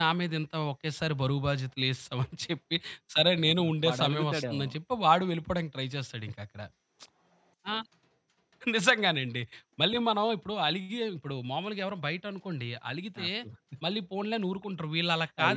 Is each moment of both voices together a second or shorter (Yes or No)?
No